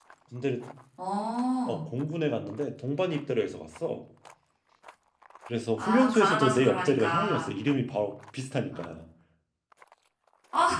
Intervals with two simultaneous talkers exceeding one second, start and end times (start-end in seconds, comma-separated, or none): 5.8-7.5